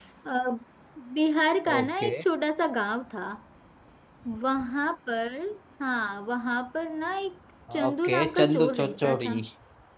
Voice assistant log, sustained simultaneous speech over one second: present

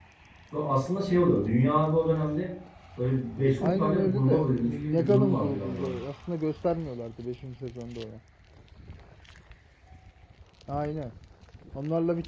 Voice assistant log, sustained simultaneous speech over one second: present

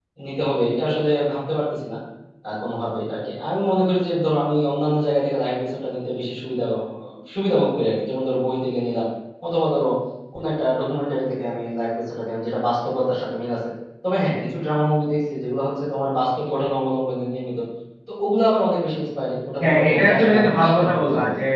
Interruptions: present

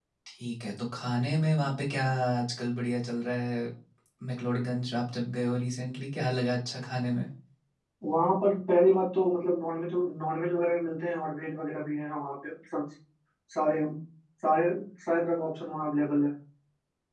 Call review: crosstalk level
none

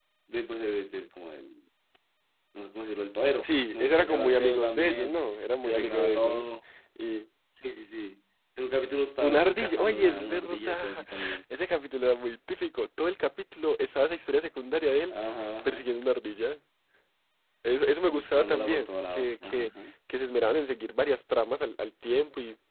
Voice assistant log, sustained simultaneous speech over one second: present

